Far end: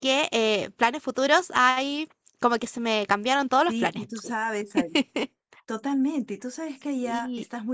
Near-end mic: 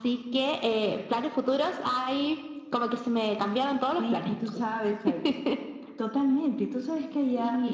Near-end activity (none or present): none